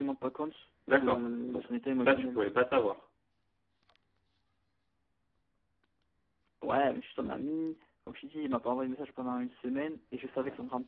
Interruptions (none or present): present